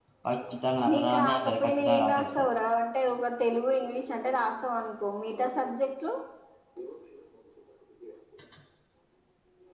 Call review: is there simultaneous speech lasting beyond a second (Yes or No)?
Yes